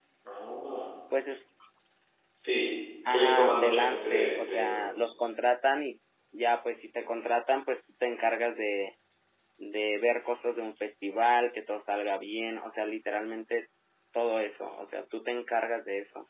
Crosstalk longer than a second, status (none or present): present